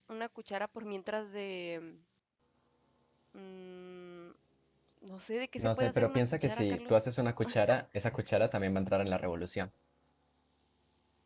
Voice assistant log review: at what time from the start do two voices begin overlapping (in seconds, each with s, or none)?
5.6 s